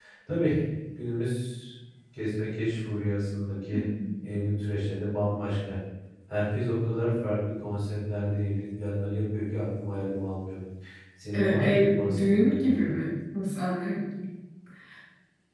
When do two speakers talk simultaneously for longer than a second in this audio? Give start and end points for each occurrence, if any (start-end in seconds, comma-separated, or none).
11.3-12.9